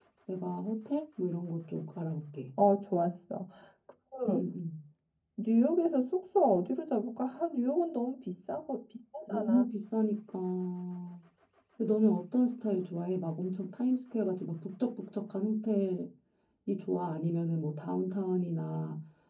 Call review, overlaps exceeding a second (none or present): none